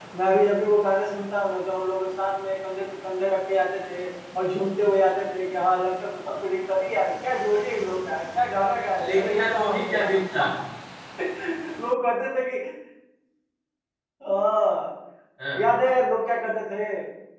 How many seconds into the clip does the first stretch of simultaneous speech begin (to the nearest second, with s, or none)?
9 s